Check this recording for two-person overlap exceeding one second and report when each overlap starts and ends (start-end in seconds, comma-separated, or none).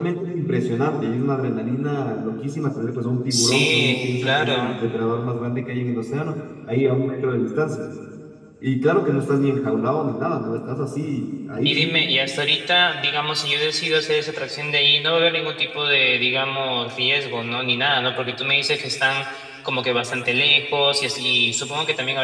3.3-4.8